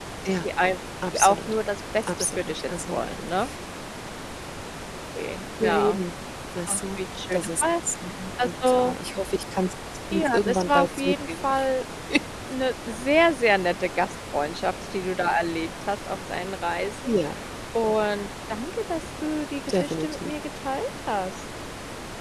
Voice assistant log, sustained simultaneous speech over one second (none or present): present